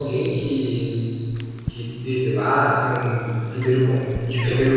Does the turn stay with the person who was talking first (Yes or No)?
Yes